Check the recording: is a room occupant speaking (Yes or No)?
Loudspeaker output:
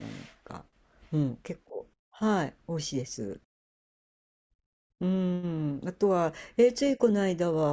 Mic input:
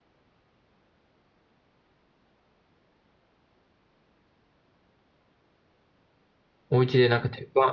Yes